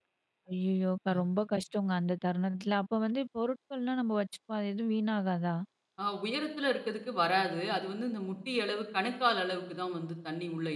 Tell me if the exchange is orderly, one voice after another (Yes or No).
Yes